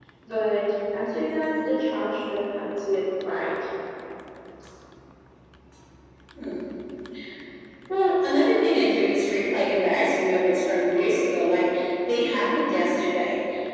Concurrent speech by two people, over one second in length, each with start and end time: none

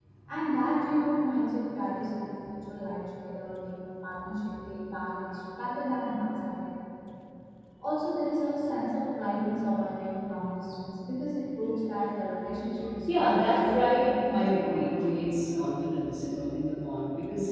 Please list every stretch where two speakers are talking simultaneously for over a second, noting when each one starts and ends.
13.1-14.9

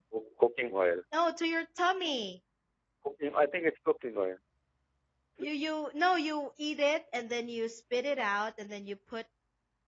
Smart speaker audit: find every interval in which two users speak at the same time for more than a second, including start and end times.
none

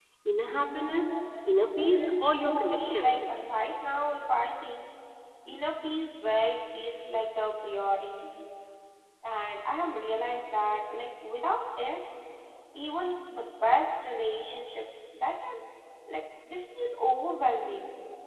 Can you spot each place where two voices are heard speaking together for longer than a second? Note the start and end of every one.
1.9-3.2

